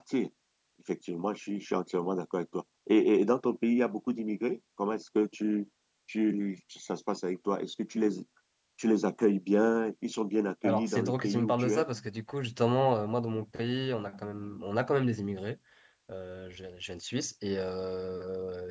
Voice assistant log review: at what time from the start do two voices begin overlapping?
11 s

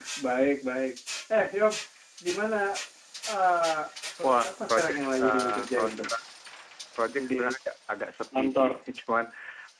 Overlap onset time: 4 s

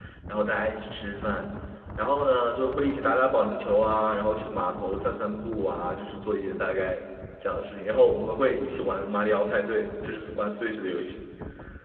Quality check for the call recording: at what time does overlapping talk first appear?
none

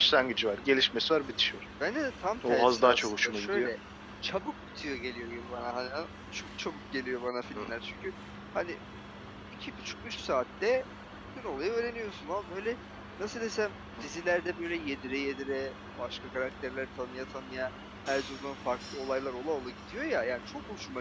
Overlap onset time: 2 s

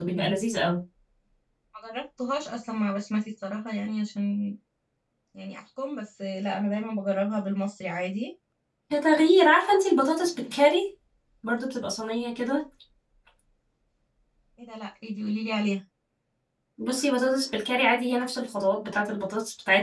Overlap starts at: none

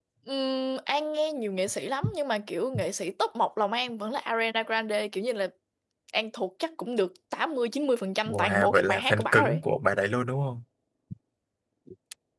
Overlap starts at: 8 s

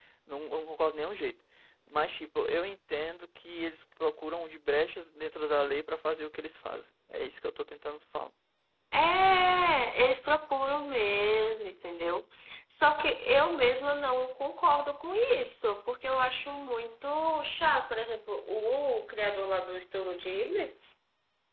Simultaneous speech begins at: none

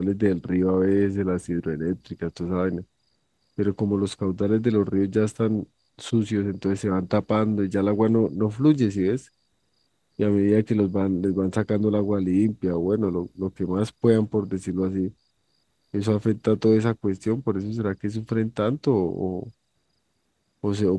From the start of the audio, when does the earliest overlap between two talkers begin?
none

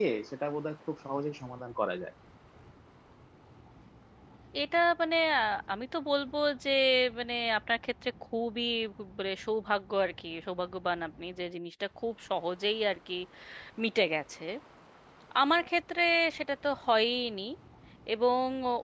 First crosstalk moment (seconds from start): none

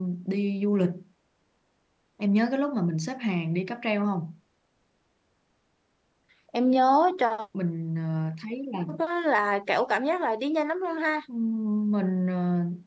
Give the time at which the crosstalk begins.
none

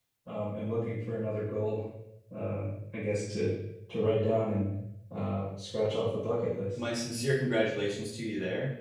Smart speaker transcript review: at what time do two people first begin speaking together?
none

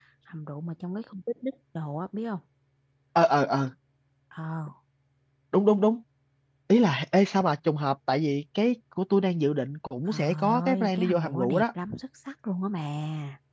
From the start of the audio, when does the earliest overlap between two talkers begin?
10 s

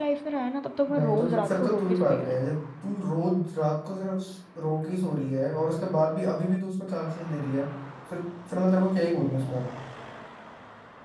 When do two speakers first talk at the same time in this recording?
1 s

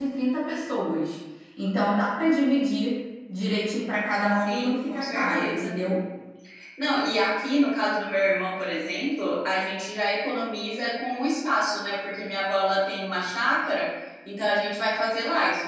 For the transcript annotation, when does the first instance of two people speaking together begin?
4 s

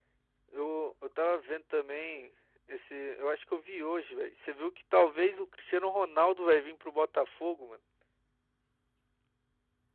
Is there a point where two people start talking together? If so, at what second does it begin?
none

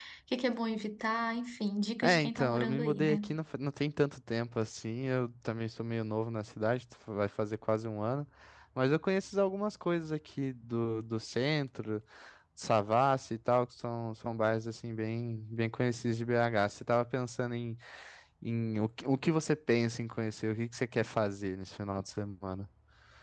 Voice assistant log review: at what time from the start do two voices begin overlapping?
2 s

